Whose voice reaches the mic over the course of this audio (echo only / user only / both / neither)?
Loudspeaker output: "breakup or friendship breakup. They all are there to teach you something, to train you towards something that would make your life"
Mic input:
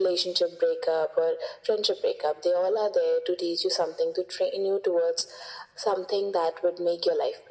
echo only